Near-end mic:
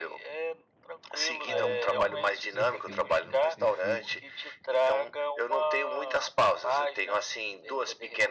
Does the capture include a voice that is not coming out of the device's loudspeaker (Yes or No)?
Yes